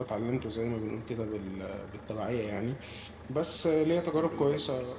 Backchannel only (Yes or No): Yes